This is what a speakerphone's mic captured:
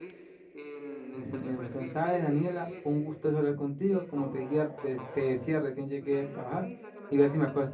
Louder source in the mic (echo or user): user